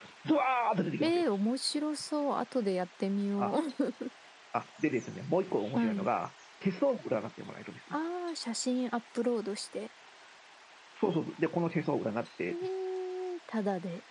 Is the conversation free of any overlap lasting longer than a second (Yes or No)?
Yes